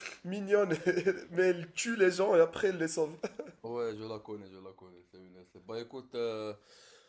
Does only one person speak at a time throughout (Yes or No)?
Yes